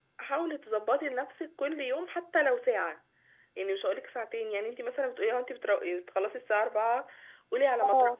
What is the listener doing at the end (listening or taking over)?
listening